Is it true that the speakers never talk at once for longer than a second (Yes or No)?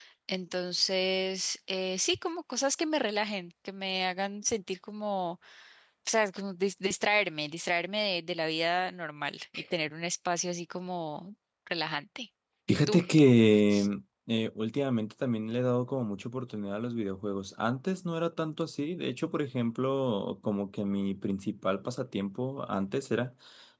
Yes